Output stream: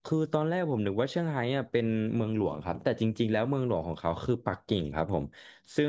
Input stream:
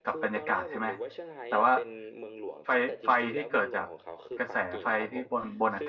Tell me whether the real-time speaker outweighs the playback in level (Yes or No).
Yes